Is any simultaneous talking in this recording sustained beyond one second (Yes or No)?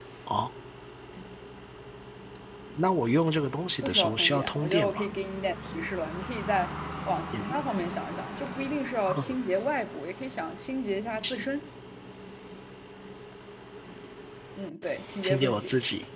Yes